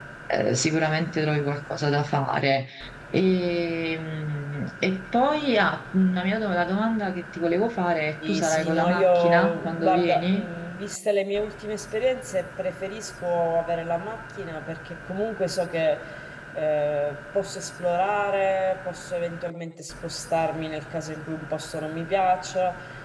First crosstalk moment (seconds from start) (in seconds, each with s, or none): 8.2 s